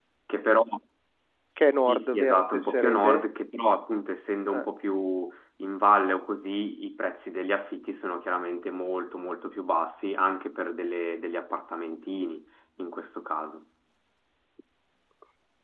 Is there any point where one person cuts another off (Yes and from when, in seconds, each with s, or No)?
Yes, from 1.8 s